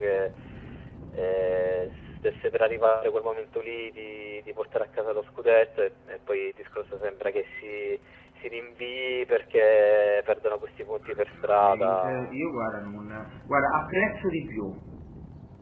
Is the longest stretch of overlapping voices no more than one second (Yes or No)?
No